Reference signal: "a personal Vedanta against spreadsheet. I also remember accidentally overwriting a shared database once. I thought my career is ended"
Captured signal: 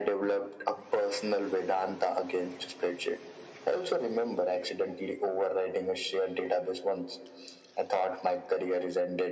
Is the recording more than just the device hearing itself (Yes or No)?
No